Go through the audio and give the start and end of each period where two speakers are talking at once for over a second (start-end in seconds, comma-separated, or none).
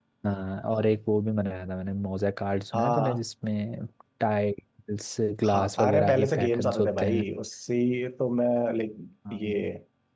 5.4-7.3